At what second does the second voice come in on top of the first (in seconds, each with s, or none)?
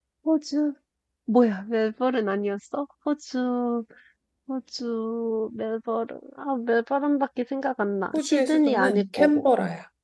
8.1 s